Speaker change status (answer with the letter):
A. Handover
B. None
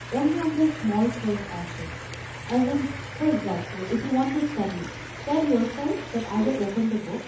B